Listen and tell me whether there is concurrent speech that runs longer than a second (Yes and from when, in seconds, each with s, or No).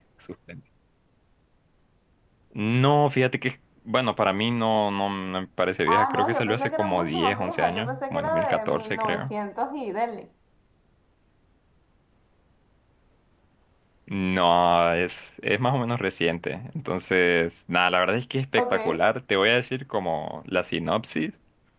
Yes, from 5.9 s